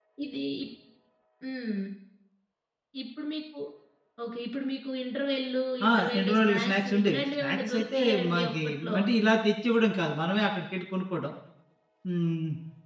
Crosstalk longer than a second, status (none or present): present